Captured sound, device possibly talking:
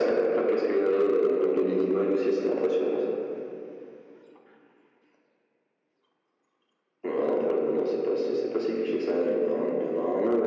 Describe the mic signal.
echo only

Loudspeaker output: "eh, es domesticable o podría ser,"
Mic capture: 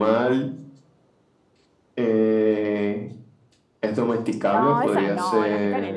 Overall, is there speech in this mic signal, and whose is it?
both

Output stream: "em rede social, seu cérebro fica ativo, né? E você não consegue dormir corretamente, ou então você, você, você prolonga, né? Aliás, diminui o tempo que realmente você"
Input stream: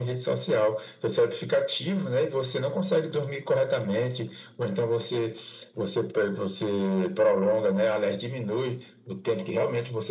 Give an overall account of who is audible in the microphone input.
echo only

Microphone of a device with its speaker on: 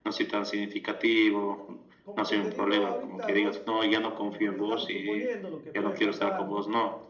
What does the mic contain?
both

